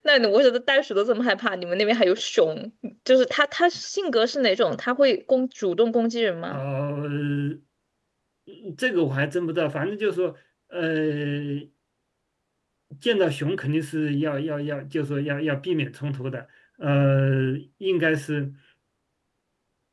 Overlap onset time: none

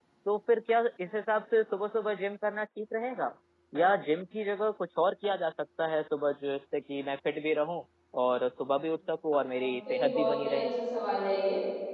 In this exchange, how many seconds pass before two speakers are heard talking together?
9.4 s

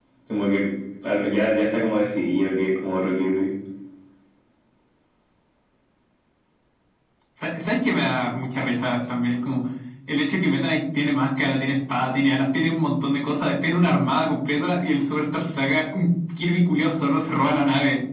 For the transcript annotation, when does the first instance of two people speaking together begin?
none

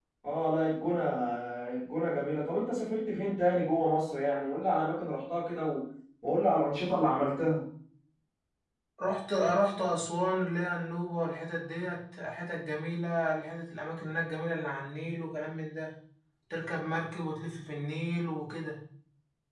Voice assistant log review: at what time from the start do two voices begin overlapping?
none

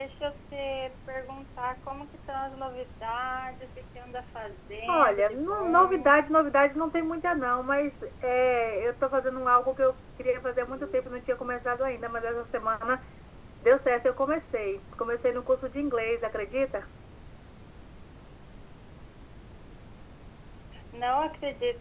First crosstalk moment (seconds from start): 4.9 s

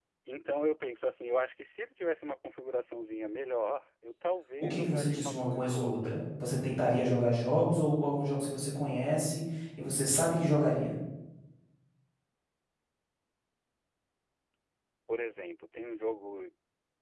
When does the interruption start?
4.6 s

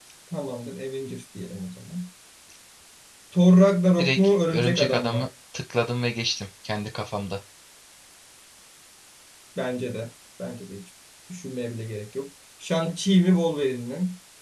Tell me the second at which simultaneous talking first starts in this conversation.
4.0 s

